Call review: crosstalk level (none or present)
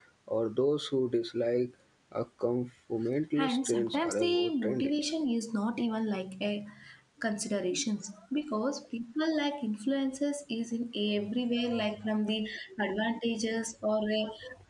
present